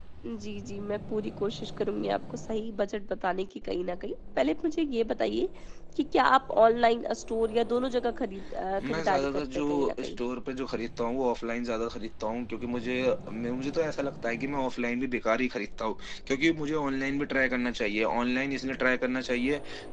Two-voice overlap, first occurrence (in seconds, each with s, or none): 8.8 s